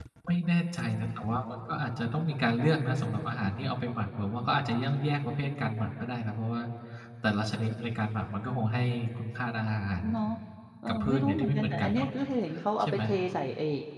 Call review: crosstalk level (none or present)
present